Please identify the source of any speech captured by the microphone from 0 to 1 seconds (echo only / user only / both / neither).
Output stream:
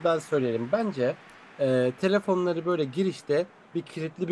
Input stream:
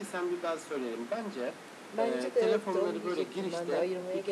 echo only